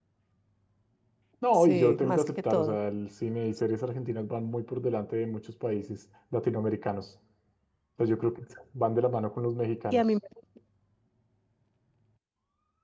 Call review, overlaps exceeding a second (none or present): present